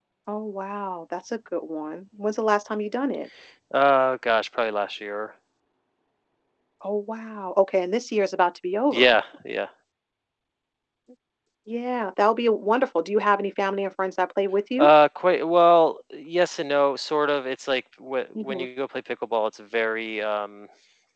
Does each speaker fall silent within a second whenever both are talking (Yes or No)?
Yes